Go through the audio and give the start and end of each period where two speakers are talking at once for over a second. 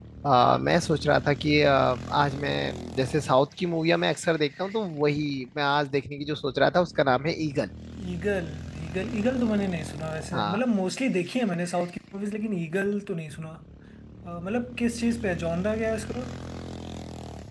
none

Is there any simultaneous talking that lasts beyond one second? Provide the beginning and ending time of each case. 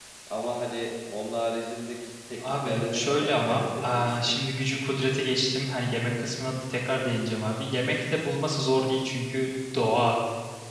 2.4-4.4

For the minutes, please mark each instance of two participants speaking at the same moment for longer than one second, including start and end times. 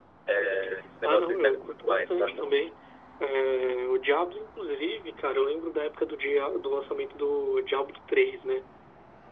1.0-2.3

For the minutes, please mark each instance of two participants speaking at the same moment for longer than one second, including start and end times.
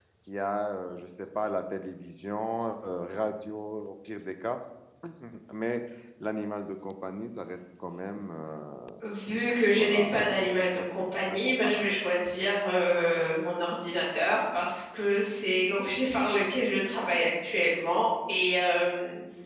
9.8-11.9

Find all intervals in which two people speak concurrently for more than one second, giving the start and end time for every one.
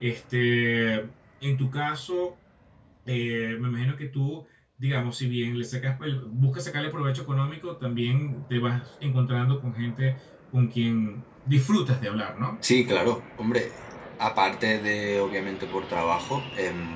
none

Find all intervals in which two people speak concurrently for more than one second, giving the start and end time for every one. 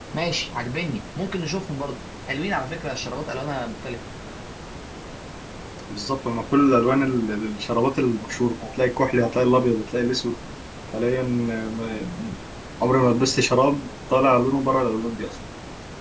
none

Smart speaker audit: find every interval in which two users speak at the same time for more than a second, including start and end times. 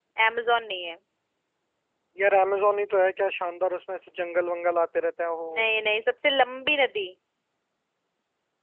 none

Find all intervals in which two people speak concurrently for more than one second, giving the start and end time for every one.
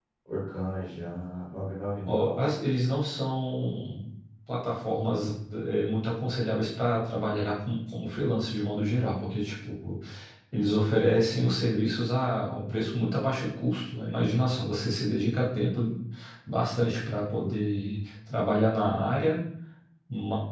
none

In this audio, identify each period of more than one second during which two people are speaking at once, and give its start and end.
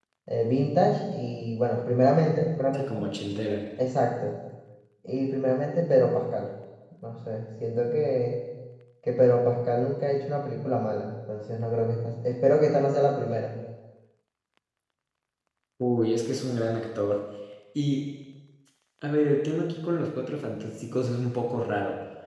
none

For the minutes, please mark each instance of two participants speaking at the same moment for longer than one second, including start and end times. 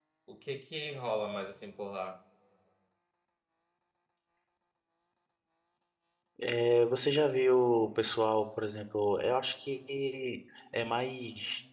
none

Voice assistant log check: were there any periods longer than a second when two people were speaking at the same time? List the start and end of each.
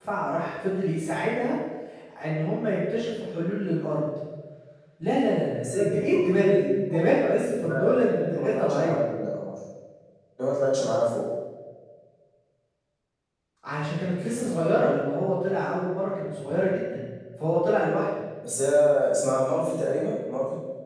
5.6-9.0

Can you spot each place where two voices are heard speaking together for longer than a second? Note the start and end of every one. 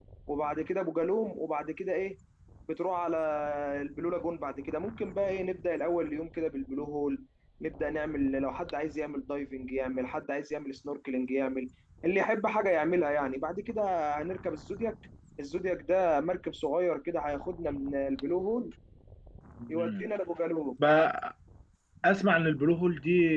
none

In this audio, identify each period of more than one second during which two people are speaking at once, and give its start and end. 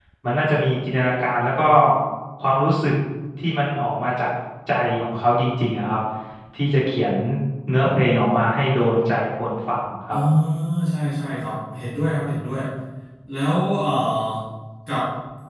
none

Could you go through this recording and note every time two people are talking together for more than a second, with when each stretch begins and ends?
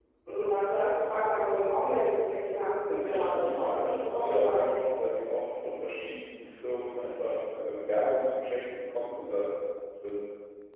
2.9-4.6

